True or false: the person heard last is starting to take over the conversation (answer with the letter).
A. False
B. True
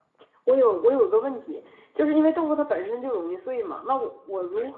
A